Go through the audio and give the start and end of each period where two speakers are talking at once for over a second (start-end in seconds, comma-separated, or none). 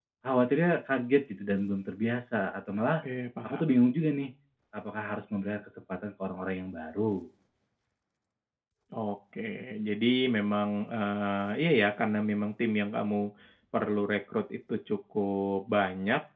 none